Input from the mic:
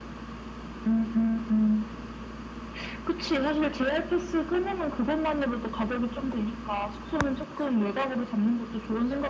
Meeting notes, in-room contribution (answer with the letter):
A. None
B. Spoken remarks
A